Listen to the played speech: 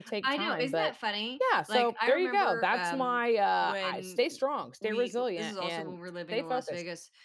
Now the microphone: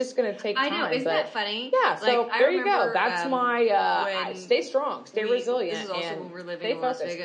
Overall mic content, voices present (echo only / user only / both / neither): echo only